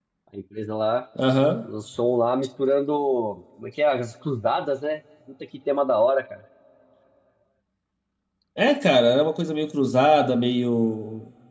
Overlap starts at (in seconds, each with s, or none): none